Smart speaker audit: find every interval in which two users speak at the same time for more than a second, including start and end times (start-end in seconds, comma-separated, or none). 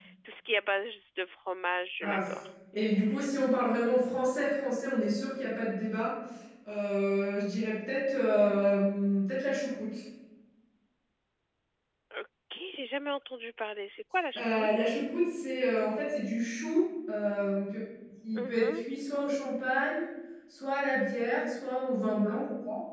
none